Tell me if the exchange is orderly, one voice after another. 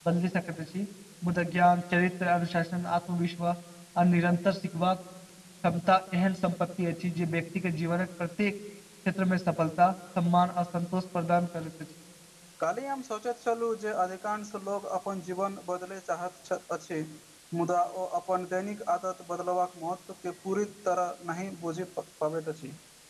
Yes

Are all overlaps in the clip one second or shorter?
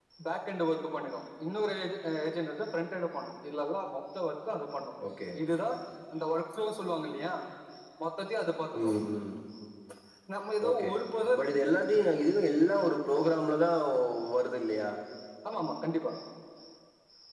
Yes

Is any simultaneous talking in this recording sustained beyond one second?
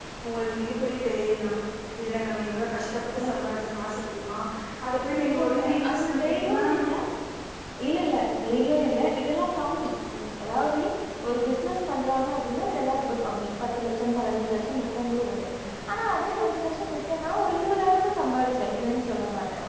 Yes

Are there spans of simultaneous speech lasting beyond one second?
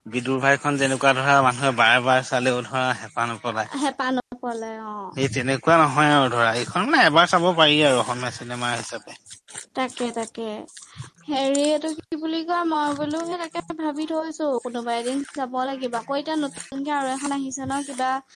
No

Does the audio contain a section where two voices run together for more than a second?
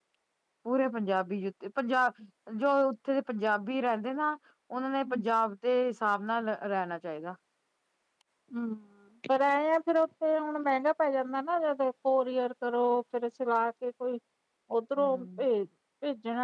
No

